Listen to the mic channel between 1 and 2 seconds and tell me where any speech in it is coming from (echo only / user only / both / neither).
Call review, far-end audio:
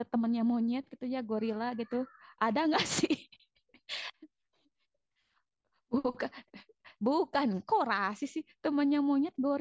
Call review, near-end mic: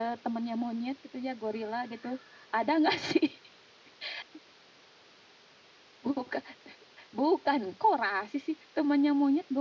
echo only